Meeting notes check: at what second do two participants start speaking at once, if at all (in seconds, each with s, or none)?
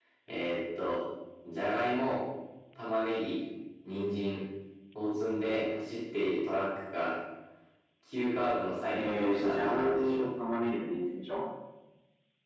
8.9 s